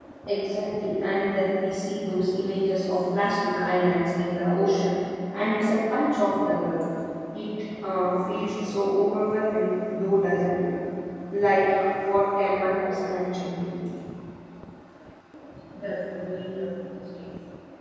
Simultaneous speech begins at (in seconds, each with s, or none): none